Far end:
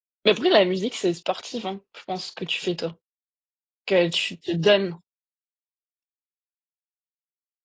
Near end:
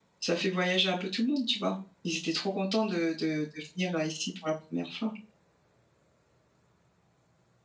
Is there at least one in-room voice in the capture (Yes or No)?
Yes